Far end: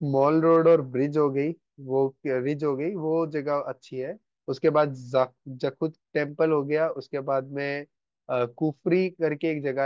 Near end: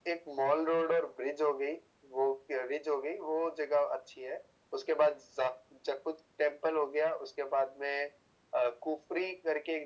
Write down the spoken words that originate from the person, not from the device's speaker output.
none

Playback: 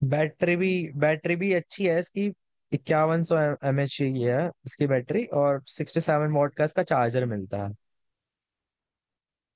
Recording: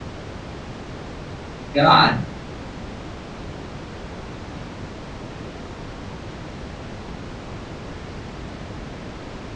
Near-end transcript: यार

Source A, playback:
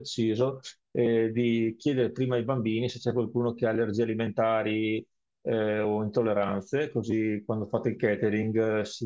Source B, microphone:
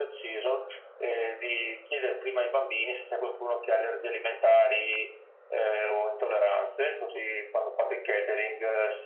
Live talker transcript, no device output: none

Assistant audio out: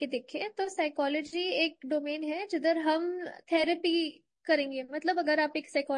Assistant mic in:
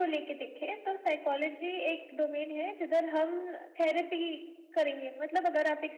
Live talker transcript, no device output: none

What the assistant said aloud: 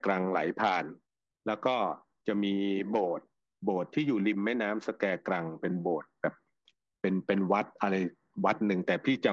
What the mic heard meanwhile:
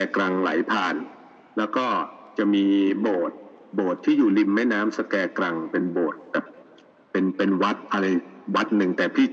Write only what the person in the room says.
none

